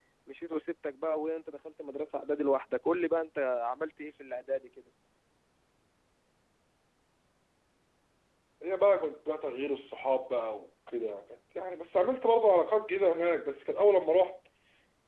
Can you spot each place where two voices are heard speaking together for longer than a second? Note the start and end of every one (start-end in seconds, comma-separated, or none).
none